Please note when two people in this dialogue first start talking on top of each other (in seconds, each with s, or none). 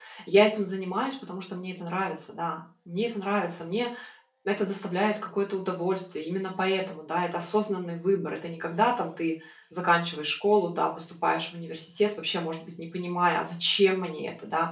none